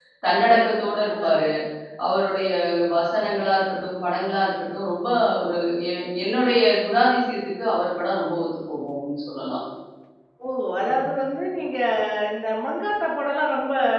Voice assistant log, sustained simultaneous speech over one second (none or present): none